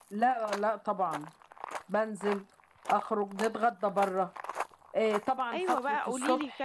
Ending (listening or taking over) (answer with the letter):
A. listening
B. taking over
B